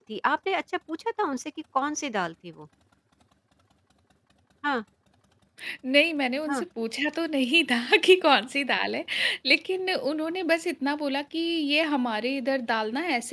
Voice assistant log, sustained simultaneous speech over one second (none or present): none